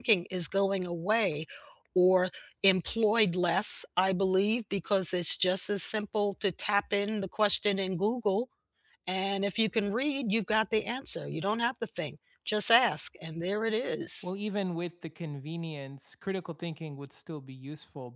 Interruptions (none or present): none